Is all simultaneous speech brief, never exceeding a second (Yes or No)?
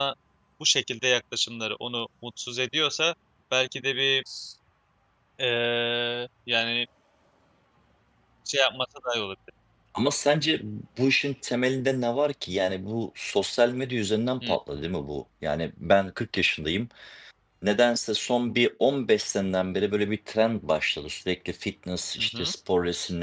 Yes